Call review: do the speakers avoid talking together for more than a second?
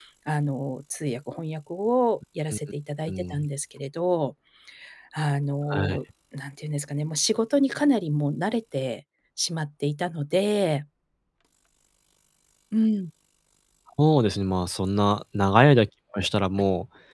Yes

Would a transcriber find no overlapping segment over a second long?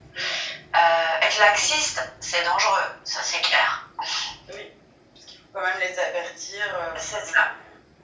Yes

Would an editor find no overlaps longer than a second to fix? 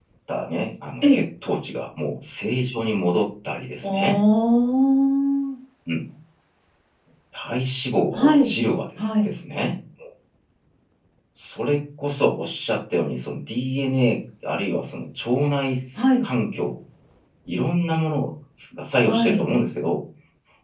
Yes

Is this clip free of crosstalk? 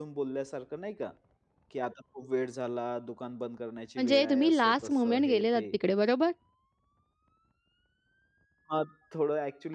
No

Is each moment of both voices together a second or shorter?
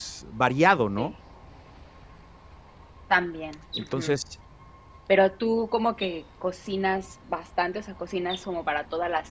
Yes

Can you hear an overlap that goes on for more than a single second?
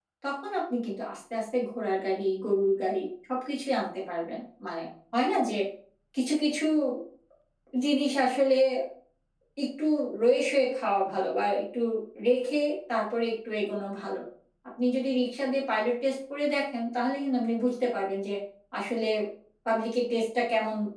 No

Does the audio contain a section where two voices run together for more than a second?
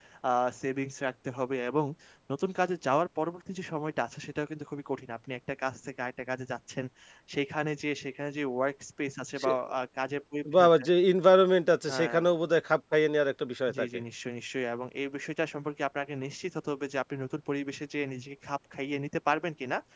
No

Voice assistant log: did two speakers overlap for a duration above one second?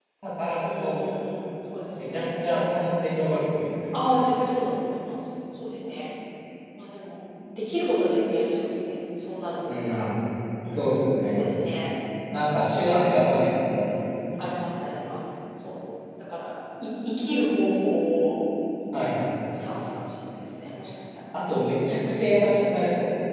No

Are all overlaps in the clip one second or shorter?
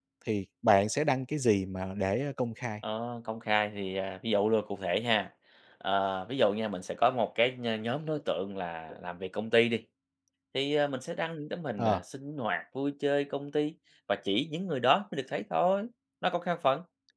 Yes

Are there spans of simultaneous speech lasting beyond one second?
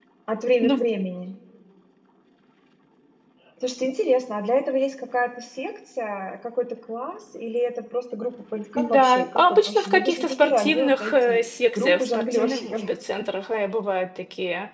Yes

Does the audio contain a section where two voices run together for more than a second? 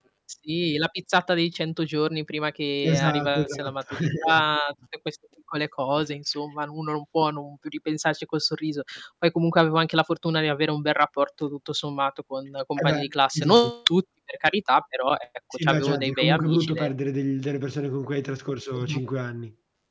Yes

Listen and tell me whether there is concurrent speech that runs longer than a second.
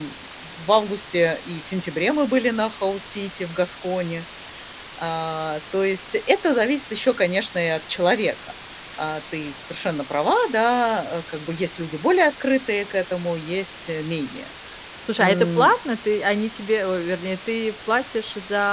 No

